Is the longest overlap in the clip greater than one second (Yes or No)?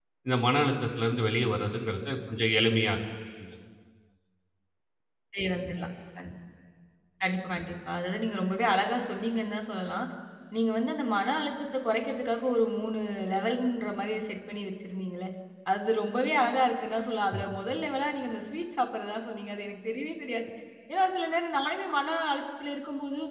No